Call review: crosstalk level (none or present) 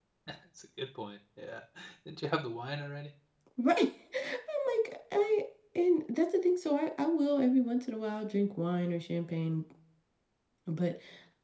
none